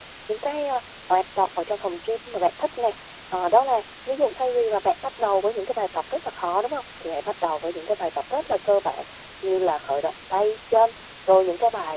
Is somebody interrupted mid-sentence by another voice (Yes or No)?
No